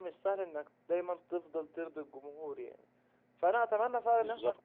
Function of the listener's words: listening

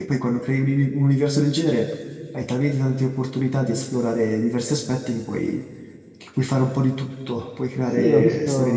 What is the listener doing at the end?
taking over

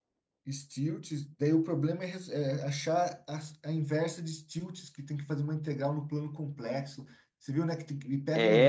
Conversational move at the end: taking over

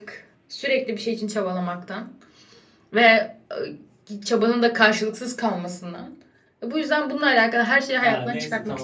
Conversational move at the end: taking over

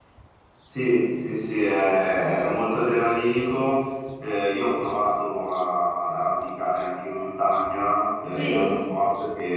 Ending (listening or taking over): listening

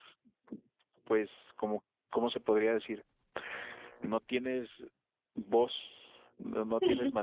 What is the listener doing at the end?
listening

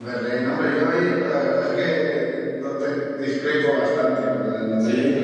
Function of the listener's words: listening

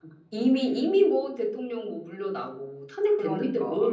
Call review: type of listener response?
taking over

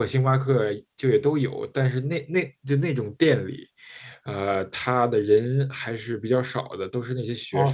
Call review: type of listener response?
taking over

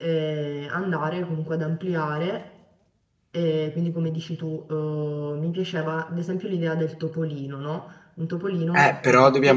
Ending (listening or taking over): taking over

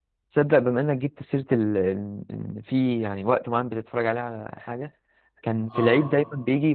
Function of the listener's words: listening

